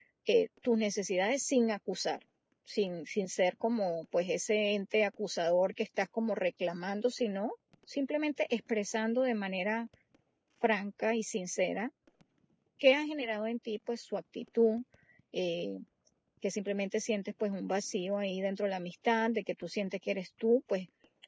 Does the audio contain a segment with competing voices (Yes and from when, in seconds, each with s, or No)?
No